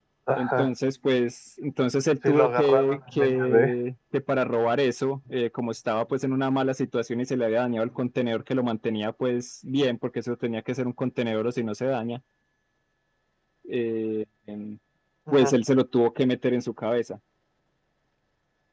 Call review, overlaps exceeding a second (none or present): present